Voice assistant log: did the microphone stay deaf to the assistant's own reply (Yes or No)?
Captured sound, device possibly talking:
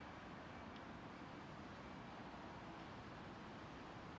Yes